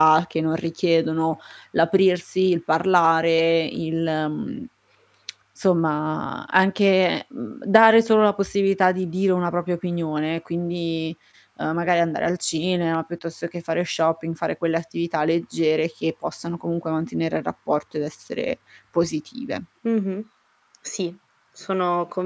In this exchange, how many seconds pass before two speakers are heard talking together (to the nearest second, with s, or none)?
none